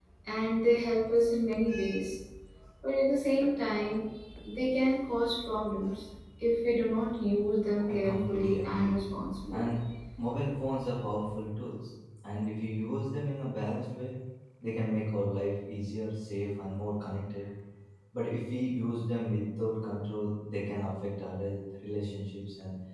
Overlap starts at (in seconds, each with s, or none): 7.9 s